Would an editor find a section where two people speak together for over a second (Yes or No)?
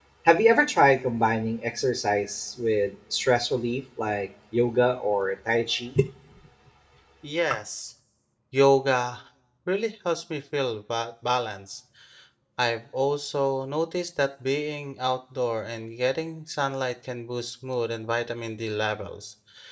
No